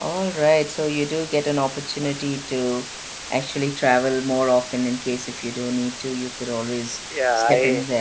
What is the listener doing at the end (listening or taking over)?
taking over